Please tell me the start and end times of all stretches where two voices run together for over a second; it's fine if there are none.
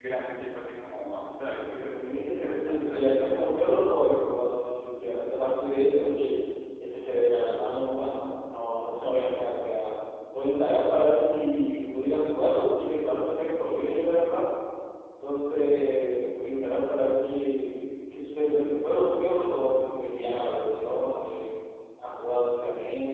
1.7-4.0

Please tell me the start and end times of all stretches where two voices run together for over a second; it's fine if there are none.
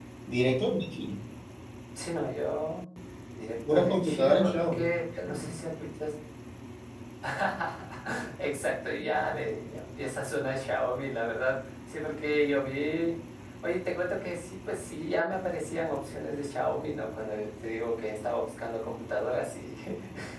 3.7-4.9

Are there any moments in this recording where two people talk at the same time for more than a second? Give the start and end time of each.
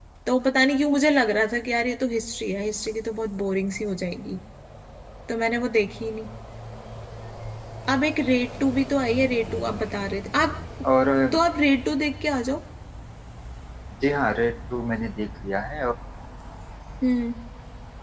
none

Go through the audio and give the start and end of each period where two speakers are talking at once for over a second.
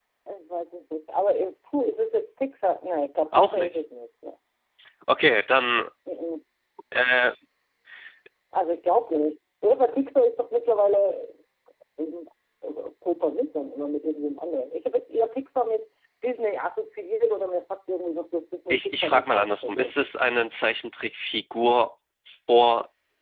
18.7-19.9

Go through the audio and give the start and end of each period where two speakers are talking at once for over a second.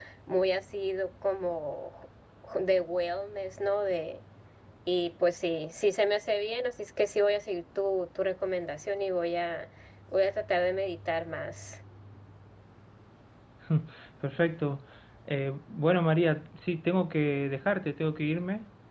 none

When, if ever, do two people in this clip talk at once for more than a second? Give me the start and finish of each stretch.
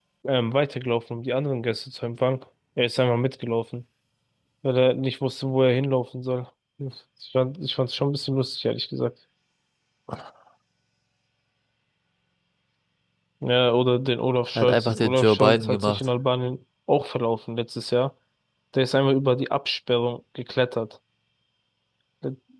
14.6-16.0

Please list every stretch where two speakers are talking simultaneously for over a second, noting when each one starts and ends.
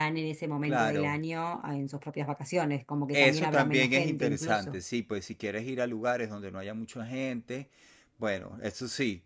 3.1-4.8

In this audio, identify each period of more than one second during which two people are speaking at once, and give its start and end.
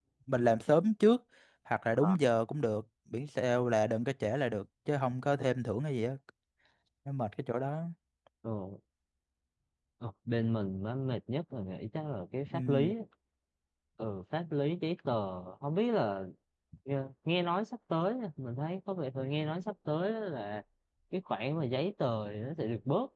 none

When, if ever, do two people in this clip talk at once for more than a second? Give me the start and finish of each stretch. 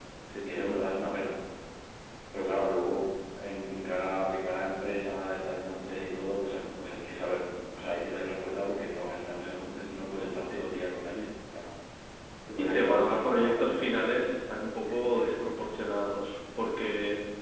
12.6-14.3

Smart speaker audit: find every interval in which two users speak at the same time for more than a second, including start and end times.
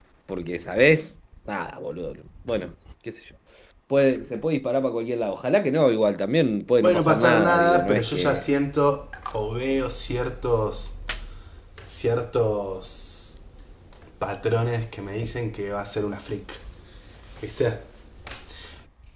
6.8-8.5

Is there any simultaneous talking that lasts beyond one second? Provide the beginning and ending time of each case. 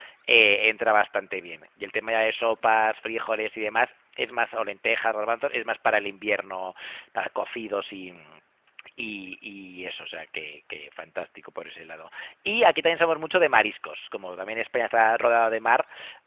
none

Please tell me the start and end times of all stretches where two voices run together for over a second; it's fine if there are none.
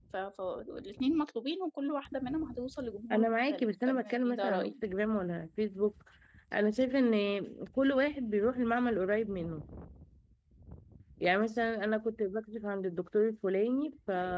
3.1-4.7

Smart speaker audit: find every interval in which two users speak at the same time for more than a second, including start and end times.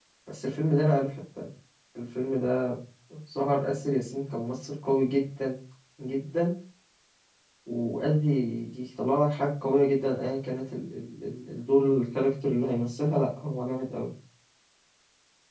none

